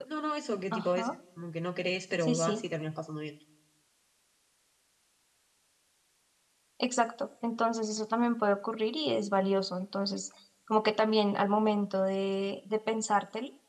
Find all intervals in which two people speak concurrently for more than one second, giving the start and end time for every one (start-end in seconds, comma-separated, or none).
none